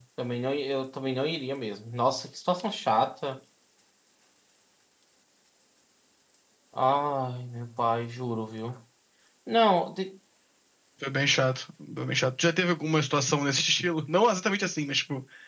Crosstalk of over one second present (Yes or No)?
No